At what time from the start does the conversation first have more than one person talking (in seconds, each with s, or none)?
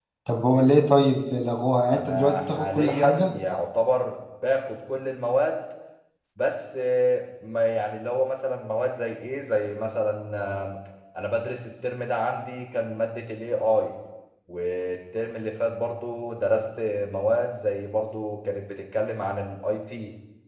1.8 s